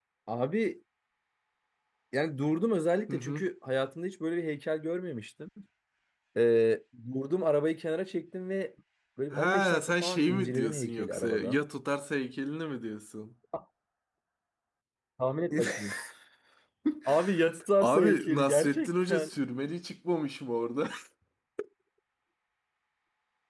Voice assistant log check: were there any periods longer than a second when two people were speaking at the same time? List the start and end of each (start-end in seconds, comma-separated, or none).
9.3-11.6, 17.8-19.3